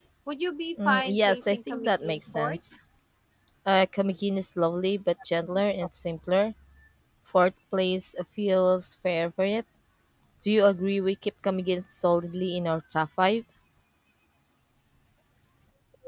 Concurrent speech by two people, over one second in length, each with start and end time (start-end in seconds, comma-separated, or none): 0.8-2.6